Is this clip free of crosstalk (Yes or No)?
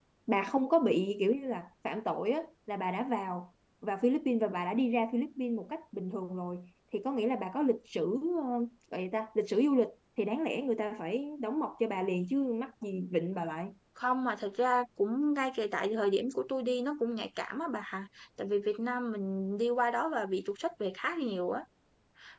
Yes